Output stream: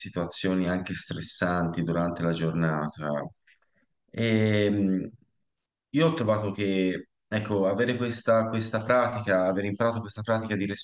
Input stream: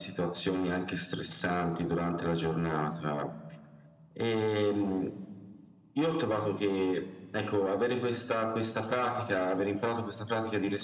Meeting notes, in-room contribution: none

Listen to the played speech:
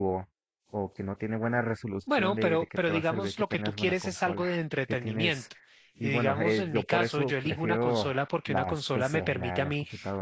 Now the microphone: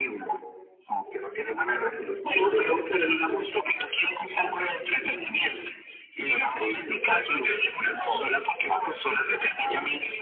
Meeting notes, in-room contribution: none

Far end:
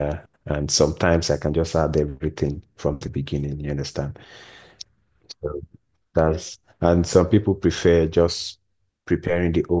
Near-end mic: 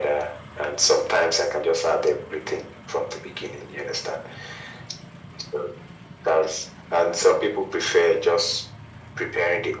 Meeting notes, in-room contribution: none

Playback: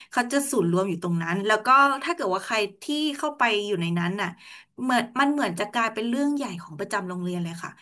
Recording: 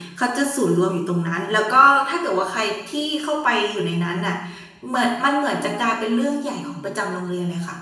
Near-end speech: none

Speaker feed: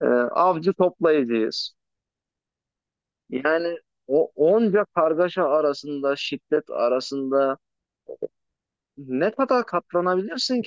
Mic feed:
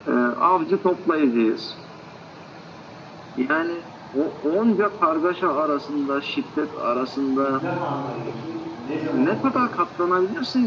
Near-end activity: present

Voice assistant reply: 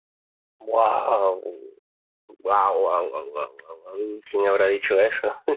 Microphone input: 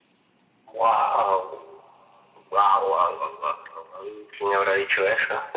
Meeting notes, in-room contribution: none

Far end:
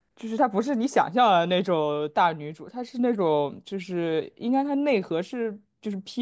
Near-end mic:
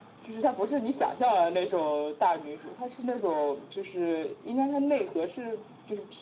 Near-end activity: none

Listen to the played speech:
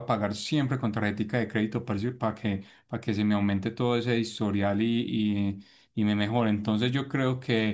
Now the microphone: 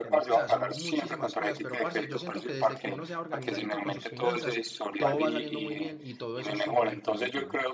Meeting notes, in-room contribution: present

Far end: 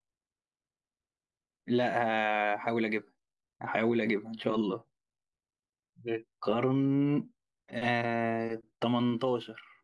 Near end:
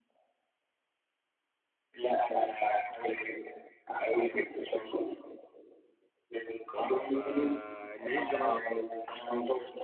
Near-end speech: present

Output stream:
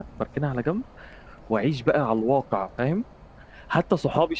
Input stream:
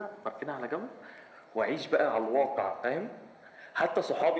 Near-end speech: none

